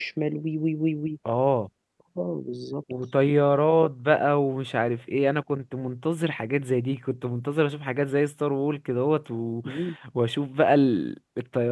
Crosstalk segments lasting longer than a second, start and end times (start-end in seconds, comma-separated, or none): none